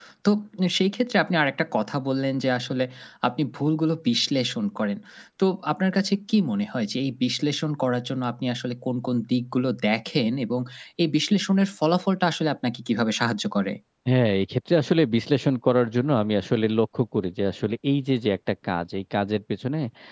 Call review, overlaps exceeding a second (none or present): none